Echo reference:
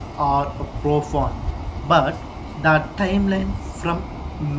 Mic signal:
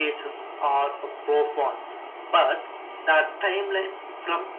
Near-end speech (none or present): none